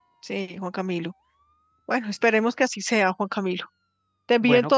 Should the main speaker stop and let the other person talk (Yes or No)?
No